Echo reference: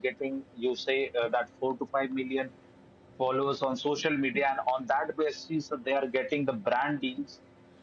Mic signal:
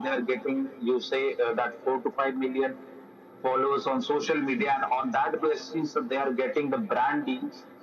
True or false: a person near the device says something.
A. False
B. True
A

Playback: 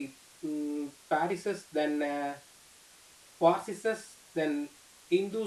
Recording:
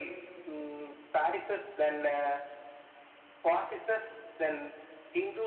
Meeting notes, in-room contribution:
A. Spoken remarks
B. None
B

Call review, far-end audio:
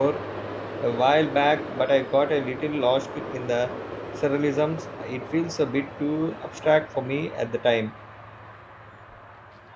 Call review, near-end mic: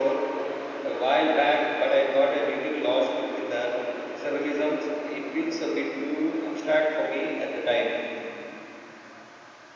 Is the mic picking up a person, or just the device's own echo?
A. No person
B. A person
A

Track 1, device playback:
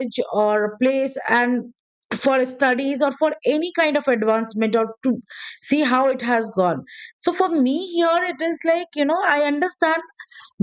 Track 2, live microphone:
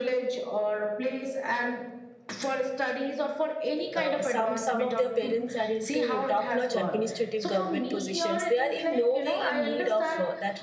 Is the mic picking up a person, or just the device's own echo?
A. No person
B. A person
B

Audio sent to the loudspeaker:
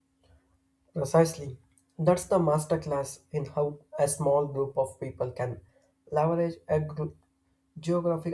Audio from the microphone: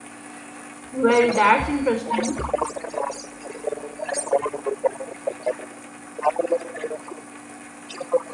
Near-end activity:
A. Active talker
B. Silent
A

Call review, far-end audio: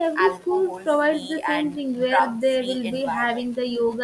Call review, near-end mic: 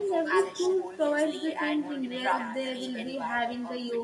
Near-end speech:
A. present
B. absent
A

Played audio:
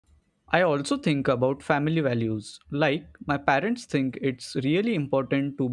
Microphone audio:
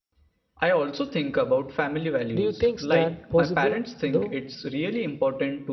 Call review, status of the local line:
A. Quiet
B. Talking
B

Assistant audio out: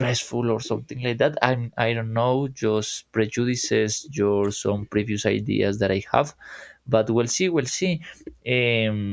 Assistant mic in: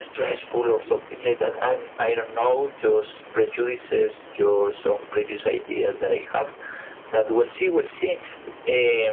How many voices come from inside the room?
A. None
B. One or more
A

